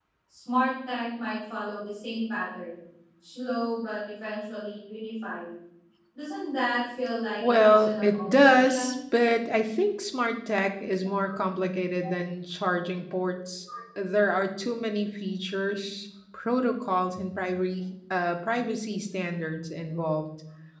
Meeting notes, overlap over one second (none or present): present